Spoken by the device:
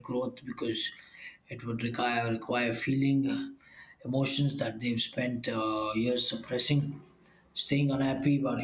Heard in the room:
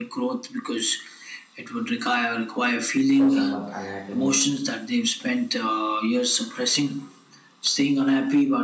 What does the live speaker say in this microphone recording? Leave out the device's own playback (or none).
for someone unhappiness,